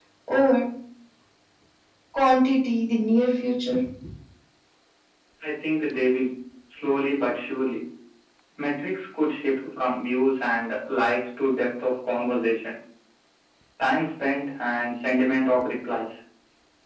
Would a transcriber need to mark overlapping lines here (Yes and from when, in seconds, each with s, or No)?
No